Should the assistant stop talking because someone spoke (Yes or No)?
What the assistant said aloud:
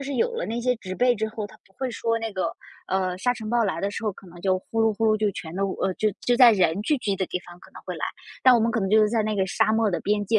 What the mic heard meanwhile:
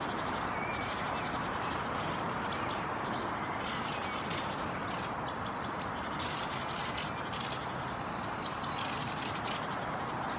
No